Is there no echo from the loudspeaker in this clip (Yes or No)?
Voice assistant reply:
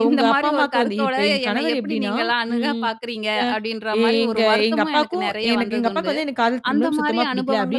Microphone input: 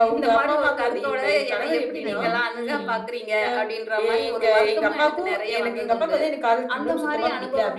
No